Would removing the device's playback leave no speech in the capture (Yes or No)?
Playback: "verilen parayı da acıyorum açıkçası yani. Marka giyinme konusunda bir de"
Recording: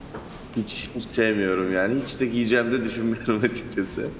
No